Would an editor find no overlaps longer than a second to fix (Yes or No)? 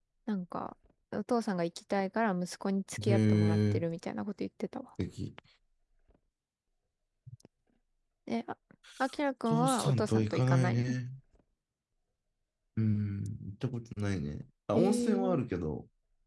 No